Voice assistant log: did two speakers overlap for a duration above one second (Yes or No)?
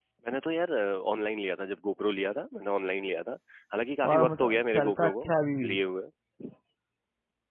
Yes